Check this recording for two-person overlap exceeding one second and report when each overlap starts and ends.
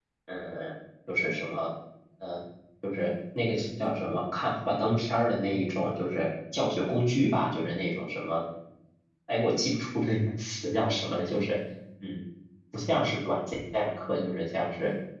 none

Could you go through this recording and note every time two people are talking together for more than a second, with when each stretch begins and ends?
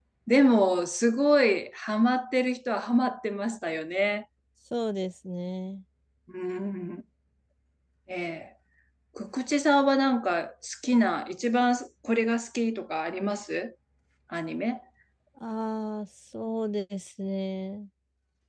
none

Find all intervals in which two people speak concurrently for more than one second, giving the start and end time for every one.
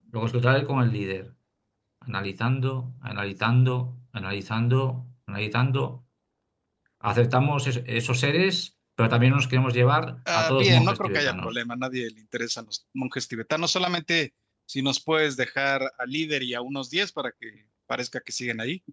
10.3-11.6

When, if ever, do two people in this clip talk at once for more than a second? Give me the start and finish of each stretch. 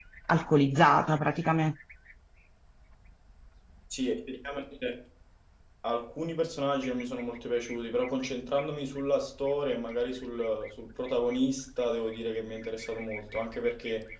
none

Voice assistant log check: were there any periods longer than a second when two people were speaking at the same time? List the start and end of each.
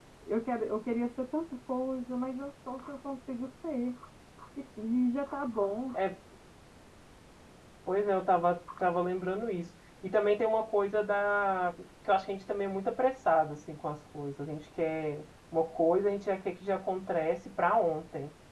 none

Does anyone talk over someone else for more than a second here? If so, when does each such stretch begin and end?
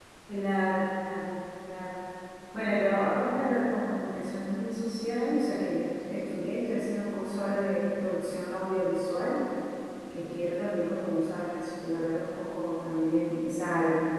none

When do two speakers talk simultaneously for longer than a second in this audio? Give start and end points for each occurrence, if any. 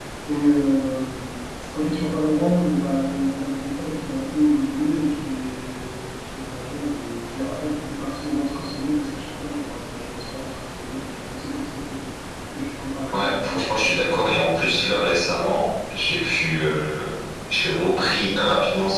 13.1-14.6

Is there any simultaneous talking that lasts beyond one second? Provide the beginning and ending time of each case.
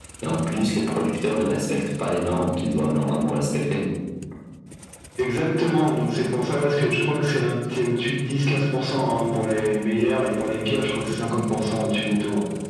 none

